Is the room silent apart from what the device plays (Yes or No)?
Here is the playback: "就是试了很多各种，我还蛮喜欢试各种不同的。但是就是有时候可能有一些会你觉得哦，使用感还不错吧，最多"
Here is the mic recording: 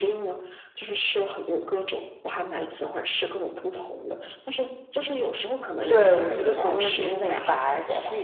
No